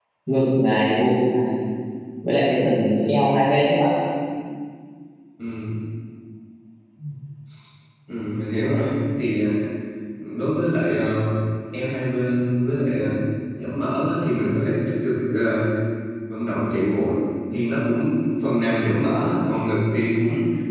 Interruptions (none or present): none